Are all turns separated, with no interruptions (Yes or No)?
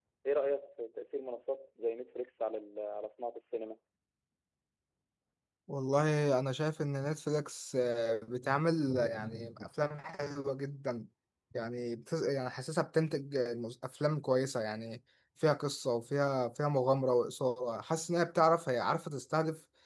Yes